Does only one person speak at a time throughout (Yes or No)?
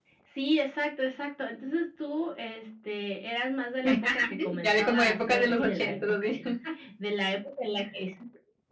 No